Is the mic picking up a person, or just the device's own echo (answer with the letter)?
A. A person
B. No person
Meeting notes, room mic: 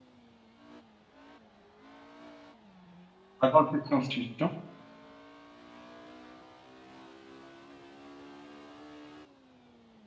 A